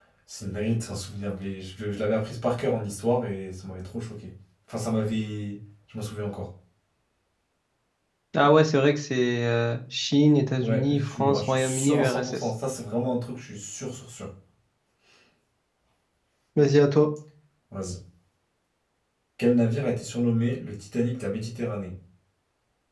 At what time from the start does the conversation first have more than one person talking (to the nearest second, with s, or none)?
11 s